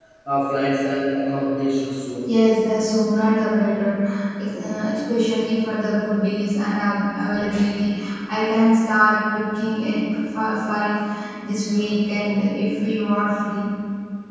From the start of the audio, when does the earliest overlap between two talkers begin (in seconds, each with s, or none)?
none